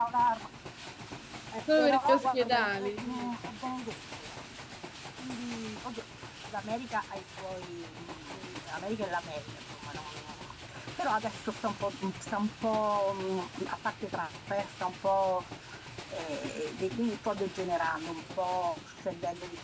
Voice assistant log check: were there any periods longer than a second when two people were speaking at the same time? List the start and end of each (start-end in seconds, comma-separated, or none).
1.8-3.3